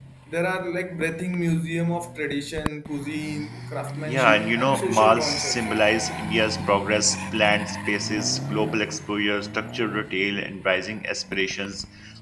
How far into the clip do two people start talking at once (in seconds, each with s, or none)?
4.0 s